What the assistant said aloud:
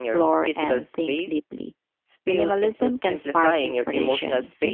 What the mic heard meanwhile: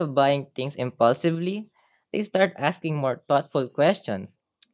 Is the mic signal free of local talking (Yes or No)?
No